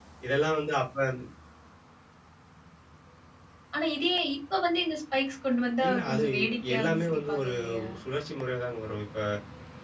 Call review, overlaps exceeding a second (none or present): present